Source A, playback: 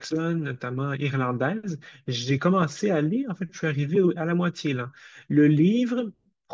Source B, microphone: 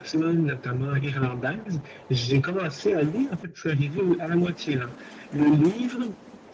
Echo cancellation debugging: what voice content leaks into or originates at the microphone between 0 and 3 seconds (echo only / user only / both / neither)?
echo only